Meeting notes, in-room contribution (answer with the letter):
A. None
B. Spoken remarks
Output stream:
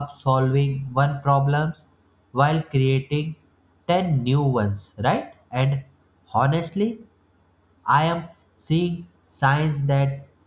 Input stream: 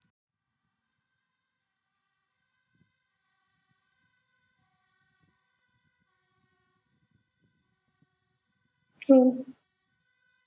B